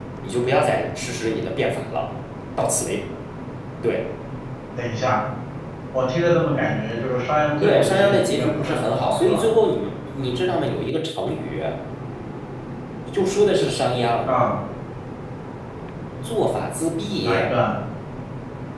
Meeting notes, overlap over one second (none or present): present